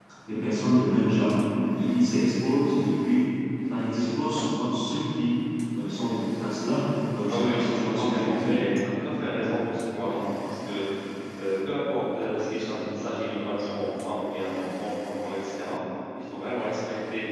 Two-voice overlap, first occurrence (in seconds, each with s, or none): 7.3 s